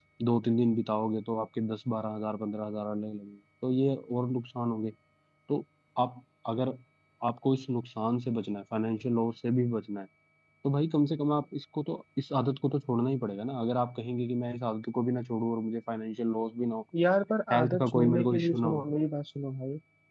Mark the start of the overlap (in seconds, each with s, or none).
17.5 s